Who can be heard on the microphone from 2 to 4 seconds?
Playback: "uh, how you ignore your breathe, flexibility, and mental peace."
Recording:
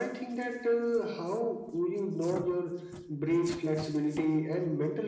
echo only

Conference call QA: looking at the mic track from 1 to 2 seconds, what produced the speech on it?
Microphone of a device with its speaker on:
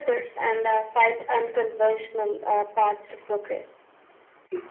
echo only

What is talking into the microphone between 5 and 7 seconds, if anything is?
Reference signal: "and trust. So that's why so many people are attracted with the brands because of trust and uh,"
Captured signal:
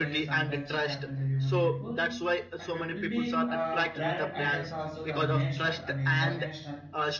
both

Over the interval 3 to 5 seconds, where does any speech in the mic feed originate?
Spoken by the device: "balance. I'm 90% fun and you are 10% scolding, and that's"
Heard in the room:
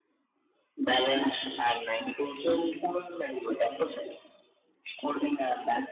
echo only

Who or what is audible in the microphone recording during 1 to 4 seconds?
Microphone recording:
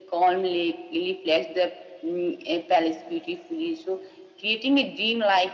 echo only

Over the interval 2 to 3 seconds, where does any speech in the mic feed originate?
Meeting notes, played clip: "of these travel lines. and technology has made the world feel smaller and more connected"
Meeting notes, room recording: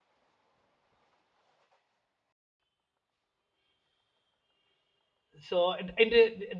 neither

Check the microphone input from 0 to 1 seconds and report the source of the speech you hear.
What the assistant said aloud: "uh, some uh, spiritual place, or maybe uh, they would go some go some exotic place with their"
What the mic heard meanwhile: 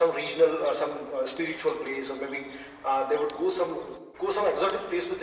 echo only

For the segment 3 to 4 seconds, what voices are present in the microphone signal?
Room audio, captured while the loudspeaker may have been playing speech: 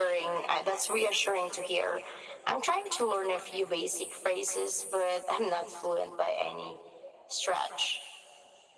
echo only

